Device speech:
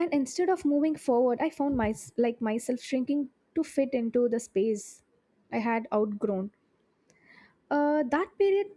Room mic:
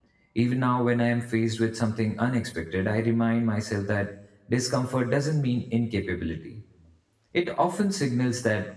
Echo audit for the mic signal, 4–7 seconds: user only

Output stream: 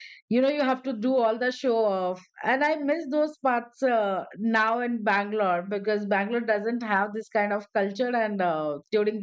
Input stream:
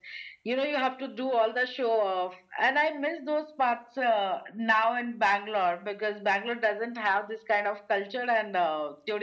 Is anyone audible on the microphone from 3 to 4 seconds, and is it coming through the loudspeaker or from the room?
echo only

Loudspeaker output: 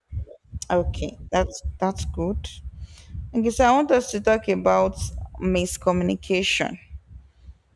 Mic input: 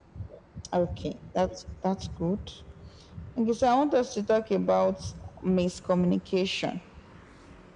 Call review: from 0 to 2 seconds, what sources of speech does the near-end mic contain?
echo only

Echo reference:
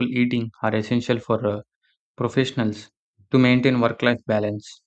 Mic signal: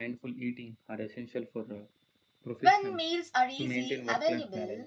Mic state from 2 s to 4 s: both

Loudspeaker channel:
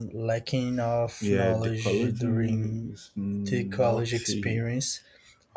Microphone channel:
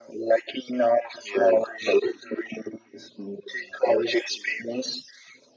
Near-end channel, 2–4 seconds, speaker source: echo only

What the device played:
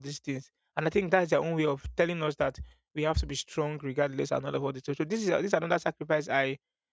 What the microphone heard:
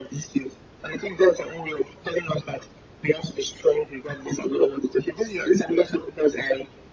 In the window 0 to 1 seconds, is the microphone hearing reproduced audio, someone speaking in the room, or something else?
echo only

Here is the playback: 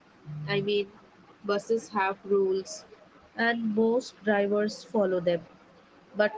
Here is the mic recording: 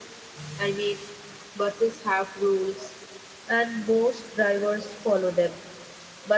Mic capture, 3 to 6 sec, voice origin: echo only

